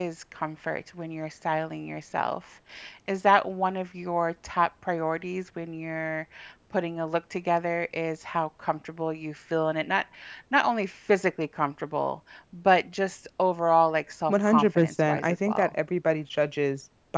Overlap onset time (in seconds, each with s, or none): 14.3 s